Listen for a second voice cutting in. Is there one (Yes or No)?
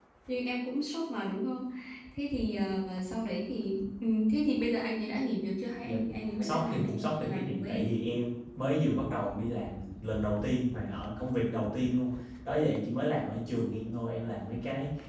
Yes